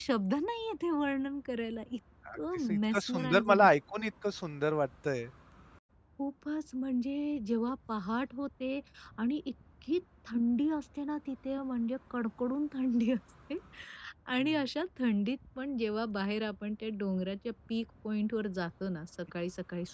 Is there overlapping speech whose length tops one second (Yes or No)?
Yes